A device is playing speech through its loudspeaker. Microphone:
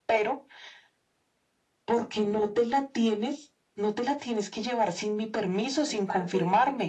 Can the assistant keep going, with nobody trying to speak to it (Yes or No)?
No